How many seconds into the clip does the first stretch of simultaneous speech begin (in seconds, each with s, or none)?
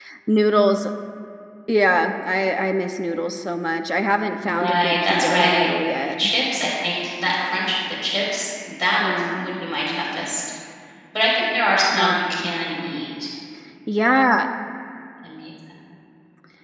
4.4 s